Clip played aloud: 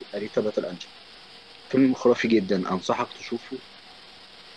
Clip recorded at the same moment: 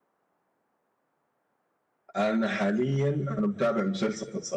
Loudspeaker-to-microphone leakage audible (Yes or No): No